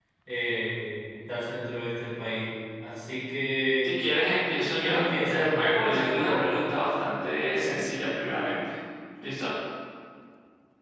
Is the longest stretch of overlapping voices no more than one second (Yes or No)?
No